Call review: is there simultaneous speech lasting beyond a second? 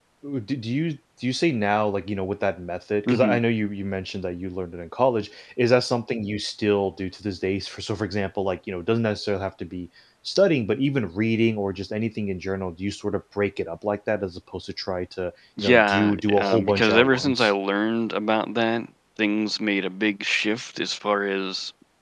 Yes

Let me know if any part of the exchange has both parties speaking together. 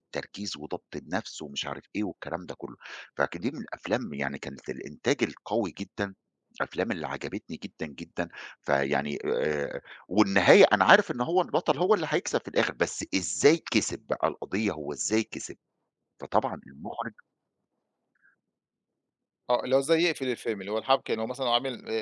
No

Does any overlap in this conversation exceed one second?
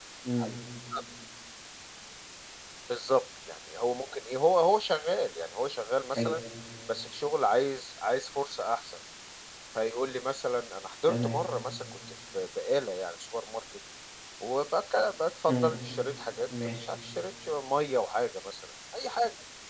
No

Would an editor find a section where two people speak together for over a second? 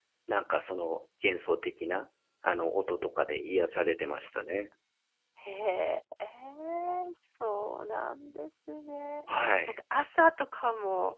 No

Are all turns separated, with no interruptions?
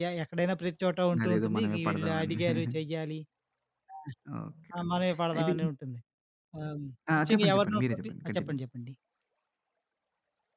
No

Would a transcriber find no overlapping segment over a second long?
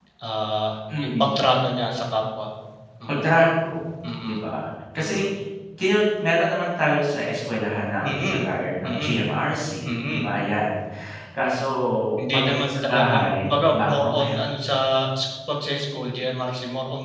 No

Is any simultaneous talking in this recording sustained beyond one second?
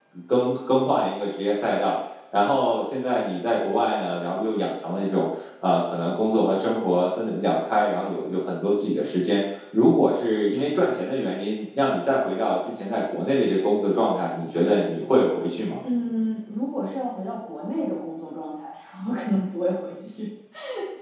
No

